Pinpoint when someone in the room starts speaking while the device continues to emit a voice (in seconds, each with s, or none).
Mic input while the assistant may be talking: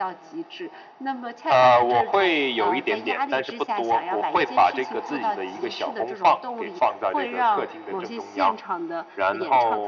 none